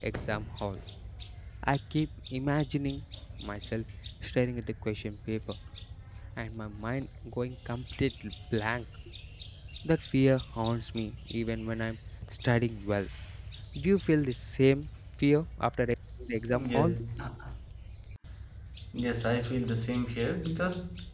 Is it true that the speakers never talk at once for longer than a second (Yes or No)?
Yes